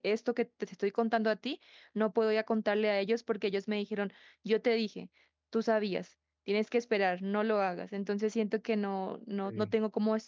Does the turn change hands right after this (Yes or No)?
No